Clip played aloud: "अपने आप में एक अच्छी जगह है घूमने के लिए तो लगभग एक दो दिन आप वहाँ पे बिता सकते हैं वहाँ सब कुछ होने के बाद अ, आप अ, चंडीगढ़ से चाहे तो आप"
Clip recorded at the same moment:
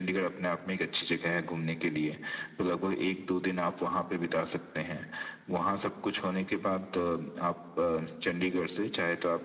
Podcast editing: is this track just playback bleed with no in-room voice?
Yes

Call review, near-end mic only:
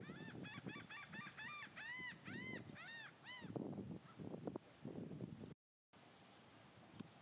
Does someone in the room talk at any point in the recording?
No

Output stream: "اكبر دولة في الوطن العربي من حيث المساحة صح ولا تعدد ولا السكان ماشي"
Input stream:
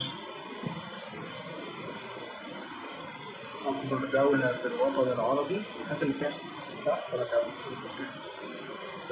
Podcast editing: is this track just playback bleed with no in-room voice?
Yes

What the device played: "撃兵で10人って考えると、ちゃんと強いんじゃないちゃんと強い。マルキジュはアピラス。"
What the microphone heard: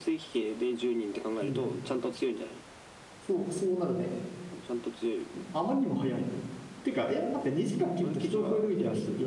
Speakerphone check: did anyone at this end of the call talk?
Yes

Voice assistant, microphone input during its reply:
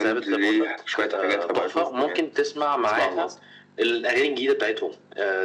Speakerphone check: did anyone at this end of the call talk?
No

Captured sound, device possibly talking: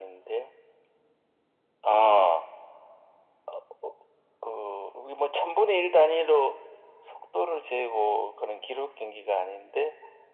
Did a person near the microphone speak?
No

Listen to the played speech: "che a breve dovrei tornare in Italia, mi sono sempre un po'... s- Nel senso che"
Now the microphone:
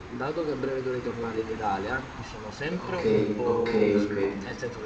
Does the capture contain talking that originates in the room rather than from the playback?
Yes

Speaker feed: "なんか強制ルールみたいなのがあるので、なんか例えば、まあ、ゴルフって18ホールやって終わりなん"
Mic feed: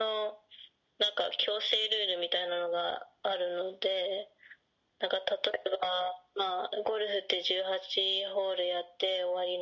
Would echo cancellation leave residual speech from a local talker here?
No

